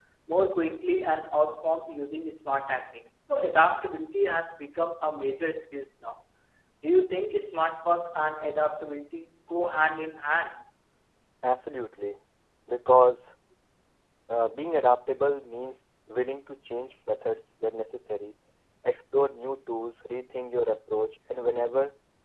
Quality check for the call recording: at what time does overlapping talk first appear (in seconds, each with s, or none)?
none